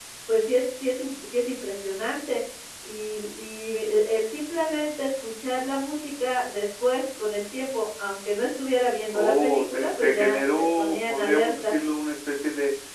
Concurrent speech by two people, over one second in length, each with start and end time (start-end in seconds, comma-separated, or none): 9.1-11.7